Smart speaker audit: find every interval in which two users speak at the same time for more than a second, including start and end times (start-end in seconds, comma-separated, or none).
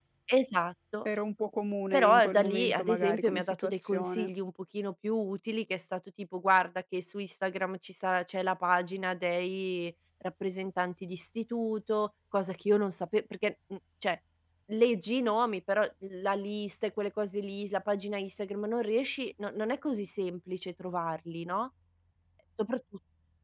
1.9-4.3